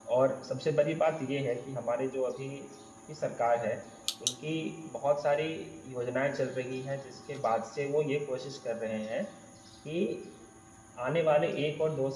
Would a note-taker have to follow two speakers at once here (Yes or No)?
No